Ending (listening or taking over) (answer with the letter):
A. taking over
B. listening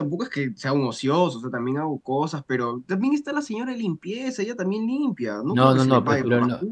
A